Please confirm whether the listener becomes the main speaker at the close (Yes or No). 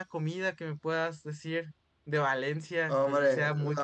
Yes